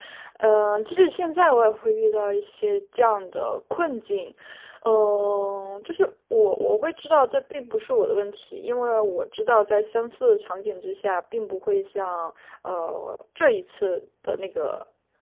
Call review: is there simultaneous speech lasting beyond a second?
No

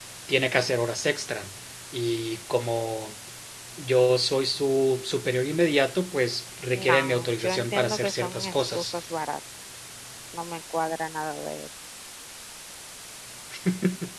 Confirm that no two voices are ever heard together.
No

